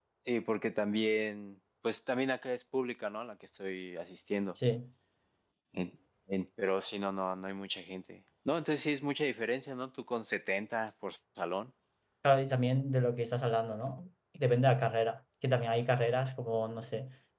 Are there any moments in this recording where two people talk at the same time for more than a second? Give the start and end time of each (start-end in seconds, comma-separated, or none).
none